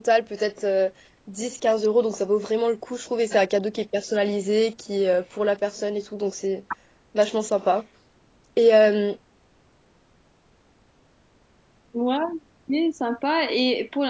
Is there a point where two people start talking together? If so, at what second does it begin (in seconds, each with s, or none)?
none